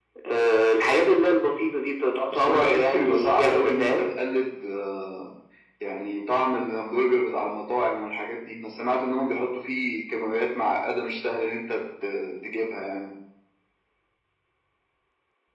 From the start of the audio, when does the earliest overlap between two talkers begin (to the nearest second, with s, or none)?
2 s